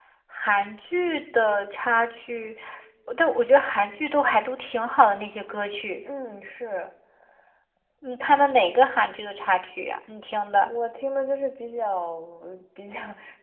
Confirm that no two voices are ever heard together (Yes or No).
Yes